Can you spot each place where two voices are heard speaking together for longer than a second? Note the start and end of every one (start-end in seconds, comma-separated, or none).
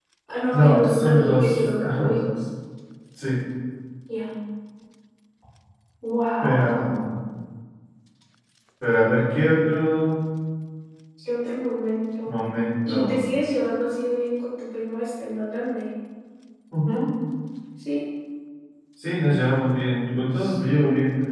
0.5-2.2